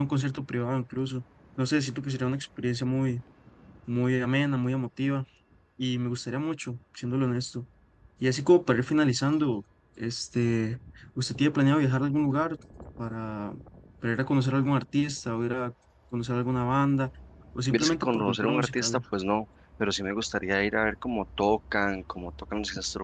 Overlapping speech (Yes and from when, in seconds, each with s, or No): Yes, from 17.7 s